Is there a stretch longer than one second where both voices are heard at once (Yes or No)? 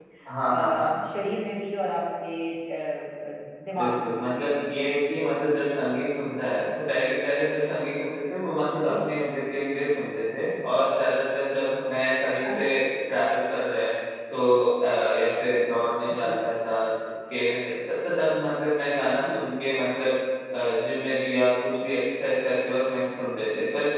No